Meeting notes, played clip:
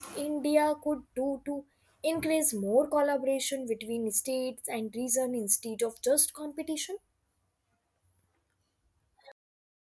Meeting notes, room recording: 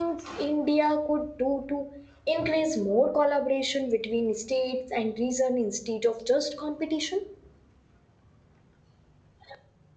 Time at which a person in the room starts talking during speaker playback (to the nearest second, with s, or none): none